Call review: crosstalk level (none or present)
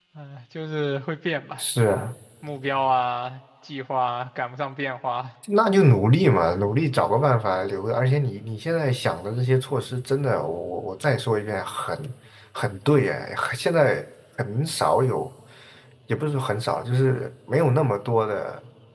none